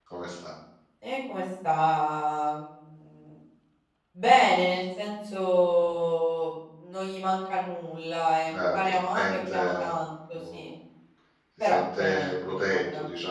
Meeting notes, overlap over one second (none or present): present